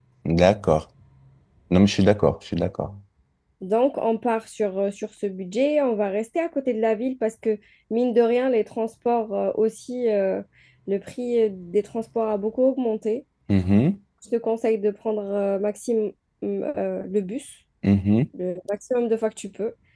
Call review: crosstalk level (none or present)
none